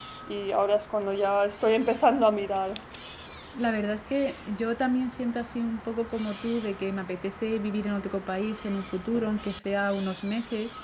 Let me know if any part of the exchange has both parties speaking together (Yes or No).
No